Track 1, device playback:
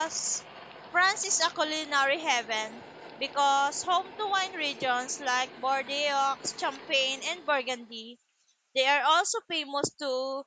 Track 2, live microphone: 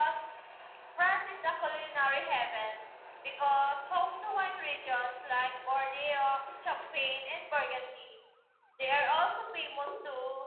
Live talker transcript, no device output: none

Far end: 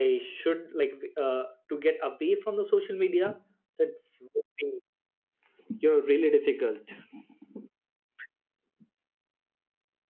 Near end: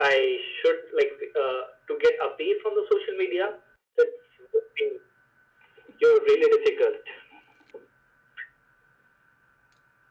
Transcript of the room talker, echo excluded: none

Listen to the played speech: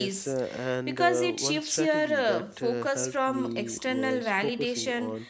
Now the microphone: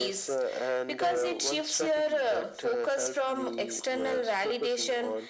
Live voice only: none

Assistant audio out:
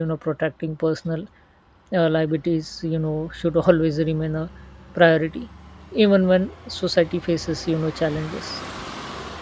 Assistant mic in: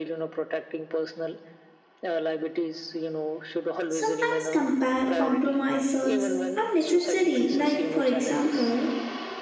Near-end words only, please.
Sometimes compa- compromises are necessary, like, for example,

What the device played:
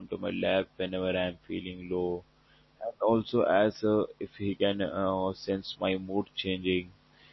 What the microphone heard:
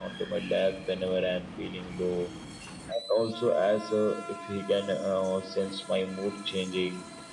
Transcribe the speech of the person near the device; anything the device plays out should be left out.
none

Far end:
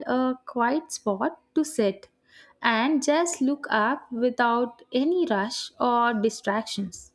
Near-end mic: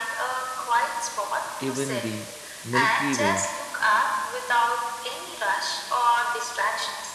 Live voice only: even the Milky Way

